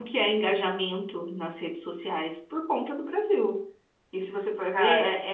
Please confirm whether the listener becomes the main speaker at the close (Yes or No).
No